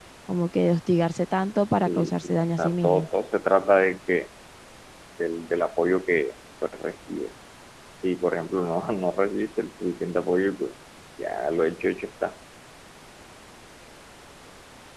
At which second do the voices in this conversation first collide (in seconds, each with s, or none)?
1.9 s